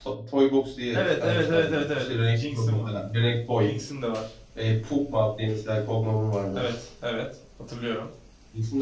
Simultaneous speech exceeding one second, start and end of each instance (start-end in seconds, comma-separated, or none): 0.9-2.9